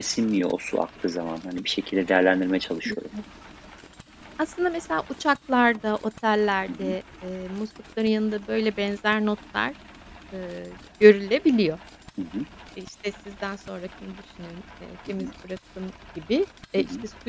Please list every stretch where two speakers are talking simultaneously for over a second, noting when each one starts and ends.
none

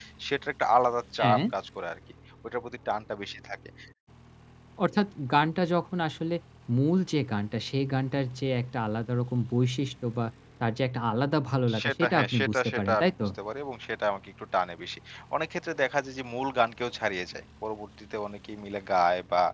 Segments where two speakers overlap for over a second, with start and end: 11.8-13.3

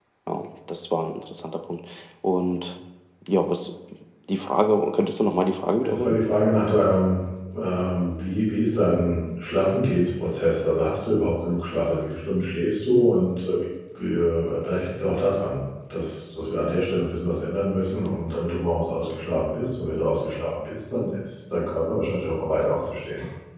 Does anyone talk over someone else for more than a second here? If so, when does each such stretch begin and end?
none

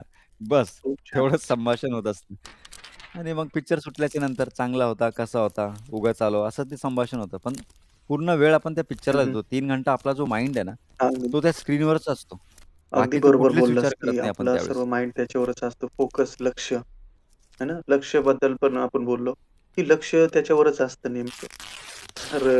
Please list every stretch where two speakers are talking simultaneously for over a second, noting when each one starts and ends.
12.9-14.7

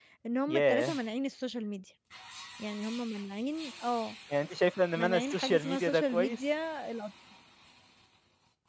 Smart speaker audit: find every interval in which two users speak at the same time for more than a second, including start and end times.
5.0-6.4

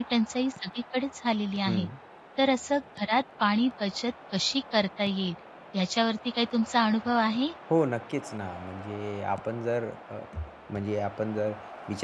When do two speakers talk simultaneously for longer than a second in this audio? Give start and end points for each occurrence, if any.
none

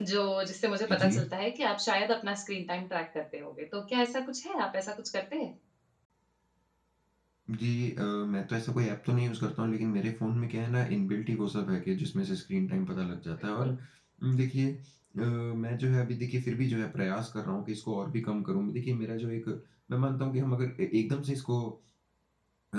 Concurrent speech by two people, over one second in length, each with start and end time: none

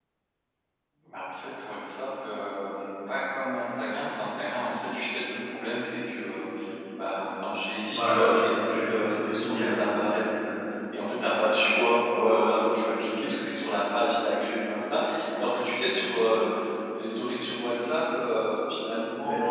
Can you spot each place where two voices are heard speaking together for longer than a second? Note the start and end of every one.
7.9-10.0

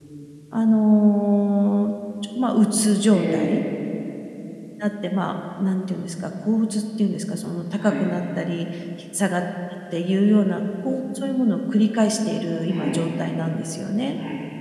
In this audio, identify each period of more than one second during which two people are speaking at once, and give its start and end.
none

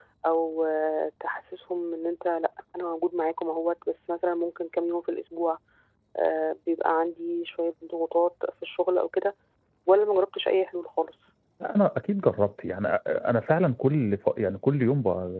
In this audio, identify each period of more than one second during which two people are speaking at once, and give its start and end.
none

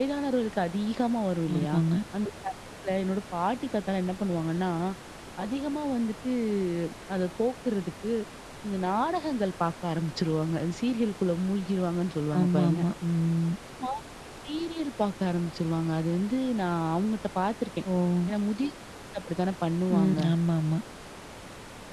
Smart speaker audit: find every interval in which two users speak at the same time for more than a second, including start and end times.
none

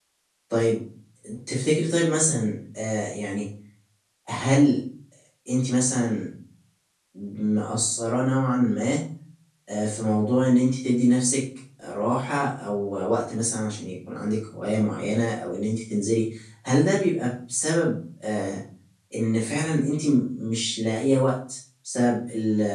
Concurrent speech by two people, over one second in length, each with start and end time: none

